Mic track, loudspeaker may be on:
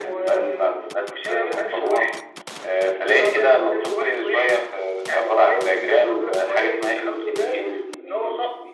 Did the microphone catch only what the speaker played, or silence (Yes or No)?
Yes